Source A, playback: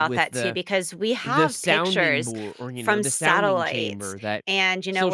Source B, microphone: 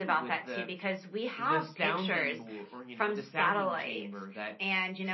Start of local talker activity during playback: none

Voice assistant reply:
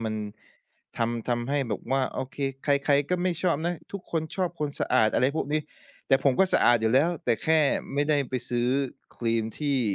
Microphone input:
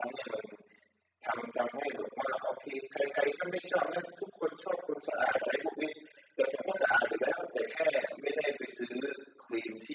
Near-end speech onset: none

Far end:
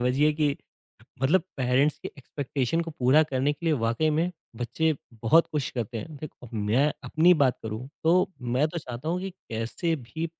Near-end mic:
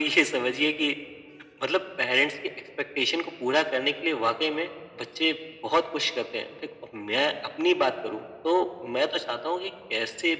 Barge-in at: none

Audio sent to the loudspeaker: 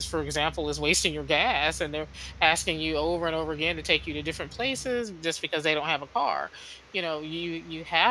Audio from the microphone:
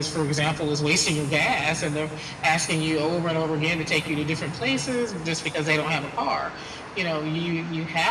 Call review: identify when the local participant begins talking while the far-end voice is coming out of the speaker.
none

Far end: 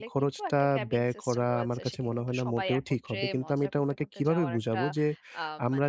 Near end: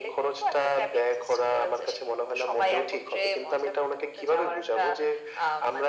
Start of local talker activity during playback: none

